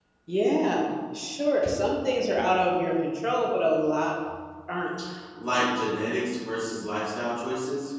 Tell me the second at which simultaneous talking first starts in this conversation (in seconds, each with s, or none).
none